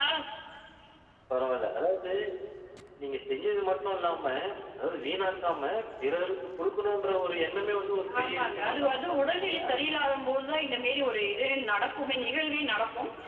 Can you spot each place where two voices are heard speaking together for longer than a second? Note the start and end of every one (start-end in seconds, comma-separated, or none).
8.2-9.7